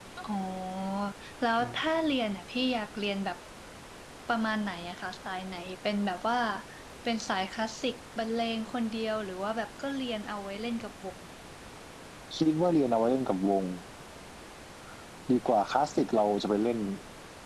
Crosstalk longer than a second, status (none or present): none